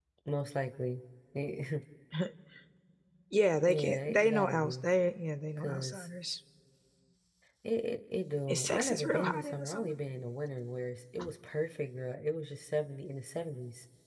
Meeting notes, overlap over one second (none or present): present